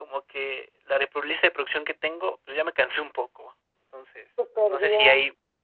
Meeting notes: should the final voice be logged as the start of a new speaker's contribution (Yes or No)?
No